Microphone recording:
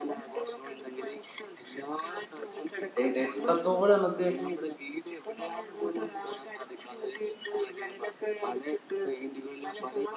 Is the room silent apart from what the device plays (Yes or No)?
No